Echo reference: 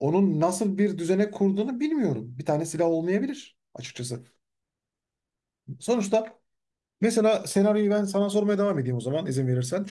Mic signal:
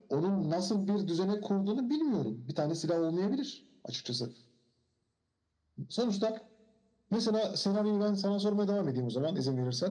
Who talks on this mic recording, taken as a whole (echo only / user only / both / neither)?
echo only